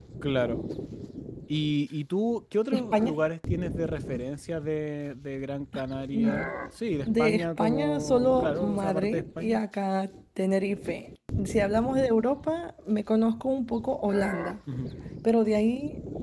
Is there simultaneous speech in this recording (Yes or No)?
Yes